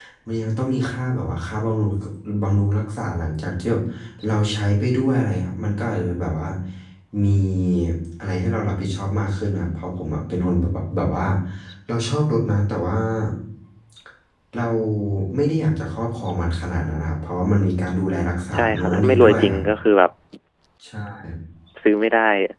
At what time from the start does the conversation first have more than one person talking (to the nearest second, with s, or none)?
18 s